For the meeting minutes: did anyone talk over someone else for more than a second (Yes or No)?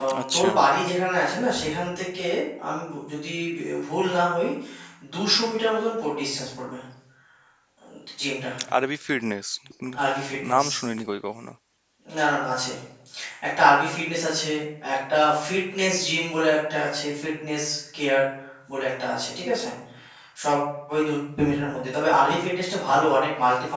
No